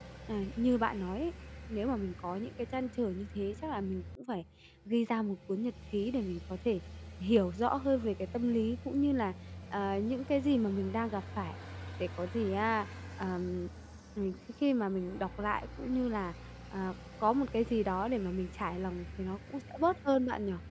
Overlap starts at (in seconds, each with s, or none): none